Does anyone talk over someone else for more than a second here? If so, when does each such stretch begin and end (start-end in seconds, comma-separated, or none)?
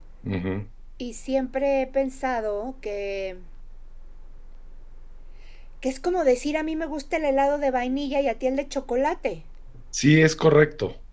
none